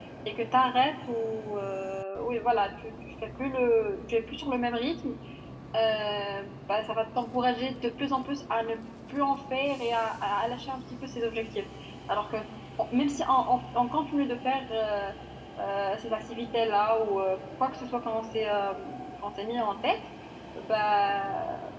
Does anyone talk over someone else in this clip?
No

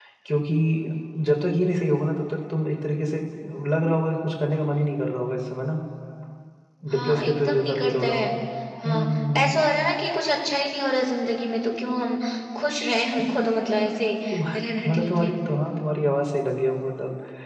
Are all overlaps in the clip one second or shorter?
No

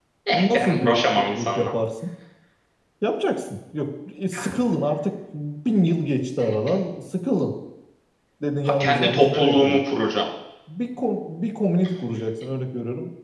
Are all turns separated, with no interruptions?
No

